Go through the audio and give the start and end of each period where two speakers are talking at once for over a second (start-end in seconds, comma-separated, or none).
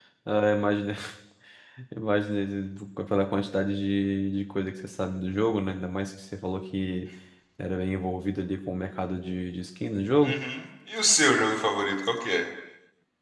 none